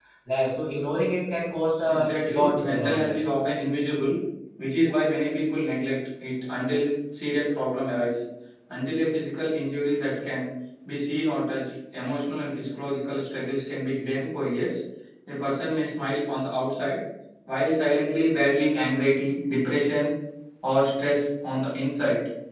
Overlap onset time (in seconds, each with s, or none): 1.9 s